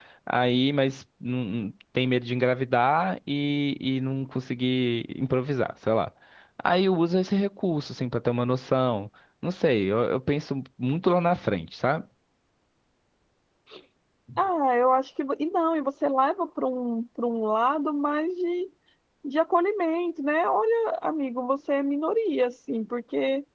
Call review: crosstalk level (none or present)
none